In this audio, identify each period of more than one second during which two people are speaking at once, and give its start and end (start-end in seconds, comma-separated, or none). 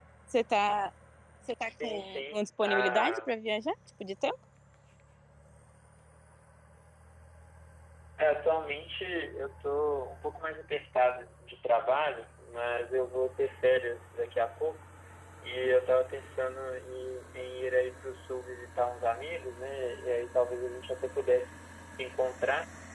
1.8-3.3